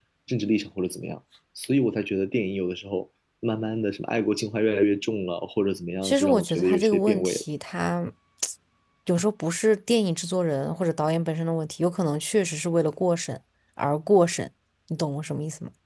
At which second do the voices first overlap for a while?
6.0 s

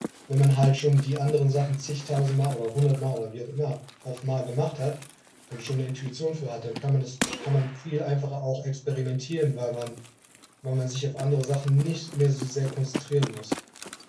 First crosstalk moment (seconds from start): none

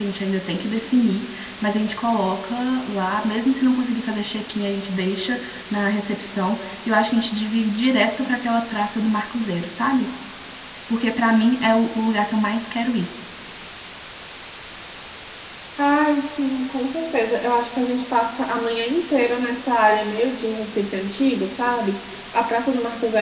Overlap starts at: none

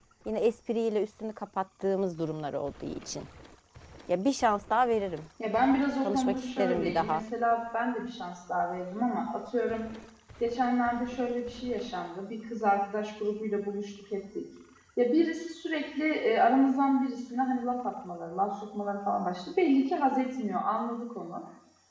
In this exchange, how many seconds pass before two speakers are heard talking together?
6.0 s

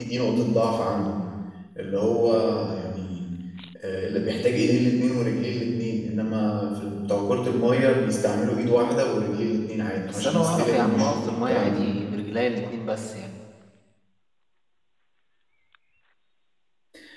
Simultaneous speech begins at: 10.1 s

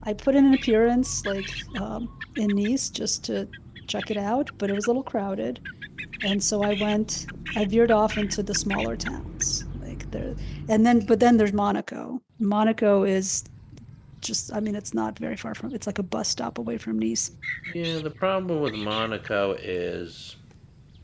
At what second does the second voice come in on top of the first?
none

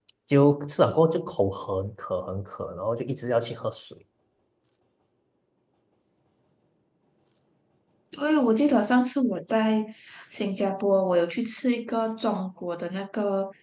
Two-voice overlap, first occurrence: none

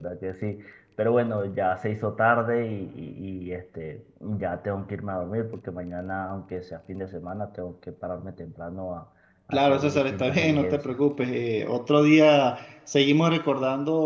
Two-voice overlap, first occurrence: 9.5 s

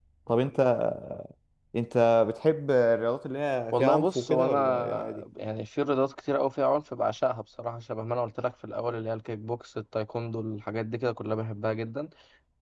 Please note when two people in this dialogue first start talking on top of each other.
3.7 s

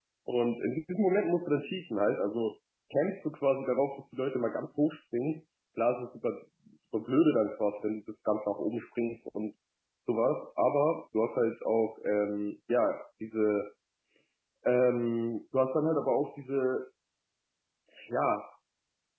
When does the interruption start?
none

